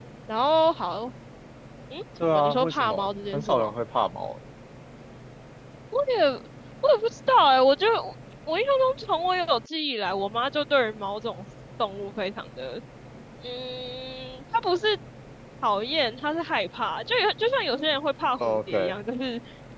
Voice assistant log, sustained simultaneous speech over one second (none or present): present